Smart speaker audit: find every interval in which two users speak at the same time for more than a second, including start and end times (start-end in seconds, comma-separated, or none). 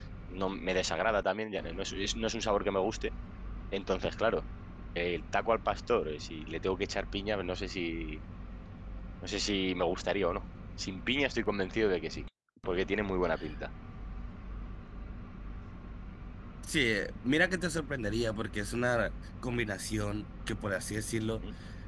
none